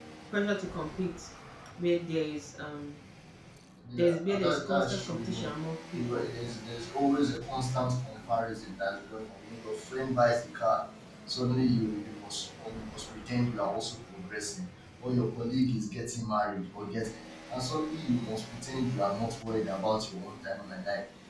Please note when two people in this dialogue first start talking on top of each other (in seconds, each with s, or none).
4.0 s